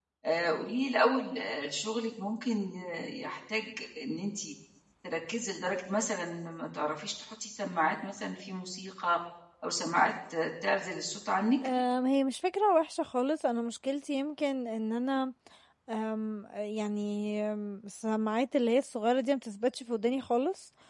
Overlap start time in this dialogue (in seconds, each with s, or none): none